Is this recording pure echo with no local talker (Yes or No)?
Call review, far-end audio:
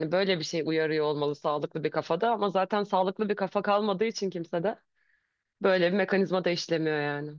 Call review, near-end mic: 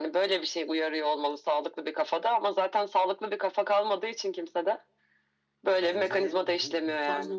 No